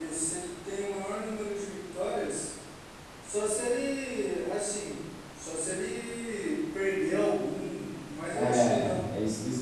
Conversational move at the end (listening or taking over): taking over